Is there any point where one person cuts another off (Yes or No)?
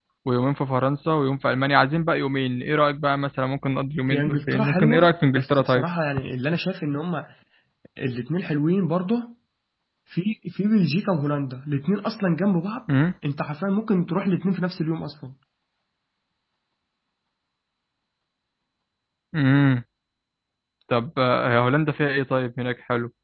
Yes